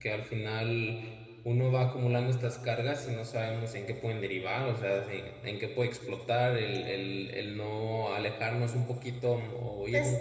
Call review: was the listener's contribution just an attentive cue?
Yes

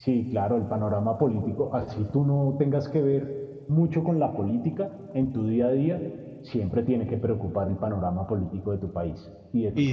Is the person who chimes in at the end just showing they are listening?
No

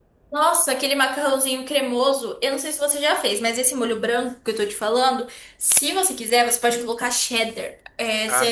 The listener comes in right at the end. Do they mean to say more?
No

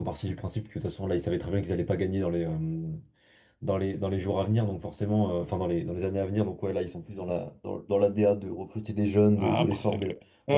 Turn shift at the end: Yes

